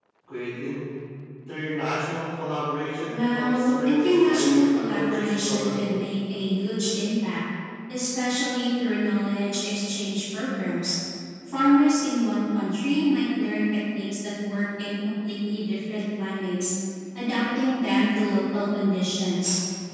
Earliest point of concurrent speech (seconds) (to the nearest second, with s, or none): 3 s